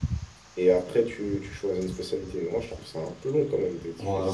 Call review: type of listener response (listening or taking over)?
taking over